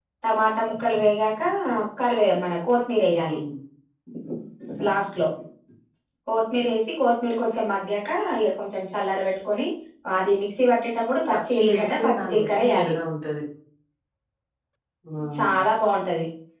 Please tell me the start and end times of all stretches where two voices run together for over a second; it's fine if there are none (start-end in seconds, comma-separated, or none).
11.3-12.9